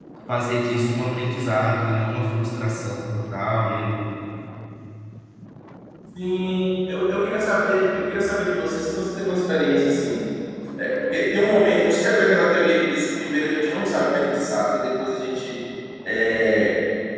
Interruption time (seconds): none

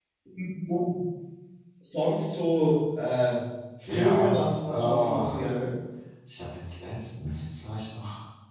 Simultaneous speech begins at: 3.9 s

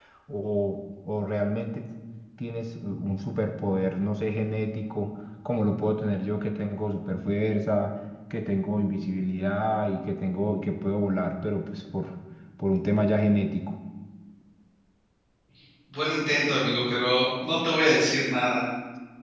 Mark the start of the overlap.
none

